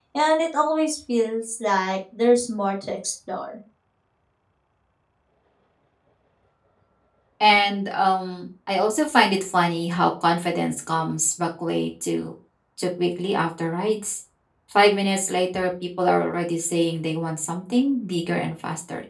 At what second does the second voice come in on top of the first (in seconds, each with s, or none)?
none